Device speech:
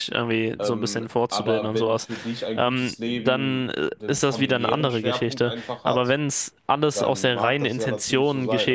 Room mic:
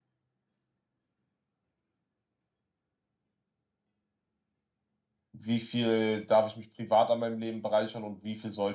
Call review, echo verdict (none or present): none